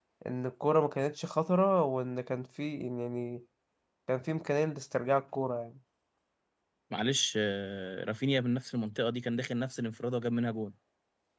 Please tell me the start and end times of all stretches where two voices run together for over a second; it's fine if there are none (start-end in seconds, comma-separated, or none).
none